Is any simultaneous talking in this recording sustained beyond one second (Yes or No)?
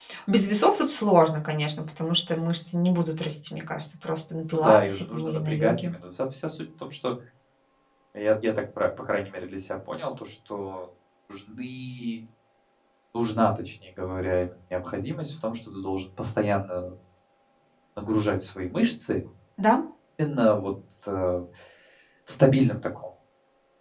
Yes